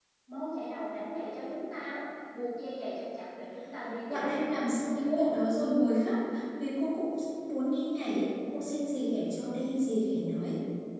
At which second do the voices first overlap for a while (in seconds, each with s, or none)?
4.1 s